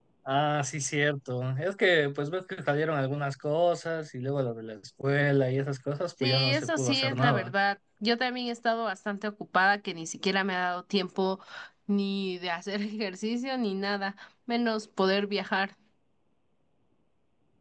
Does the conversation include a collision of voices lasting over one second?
Yes, from 6.2 s

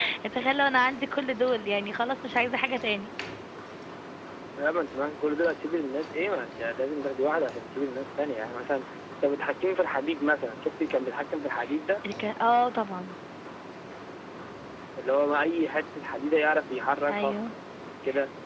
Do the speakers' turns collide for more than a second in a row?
No

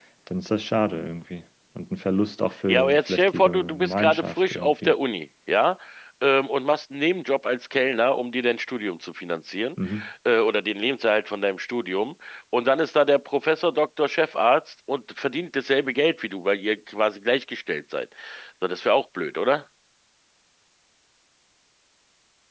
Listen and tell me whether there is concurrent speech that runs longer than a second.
Yes, from 2.7 s

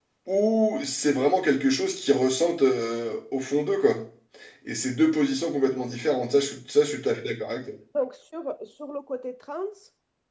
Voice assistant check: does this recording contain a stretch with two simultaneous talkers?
No

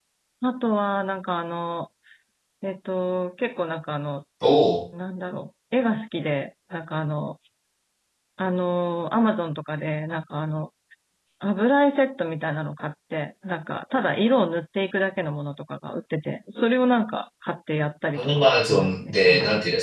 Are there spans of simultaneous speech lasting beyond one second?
Yes, from 18.2 s

